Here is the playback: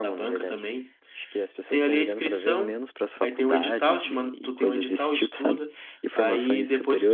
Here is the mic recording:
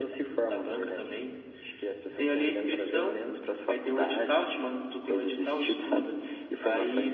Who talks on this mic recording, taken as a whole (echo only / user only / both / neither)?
echo only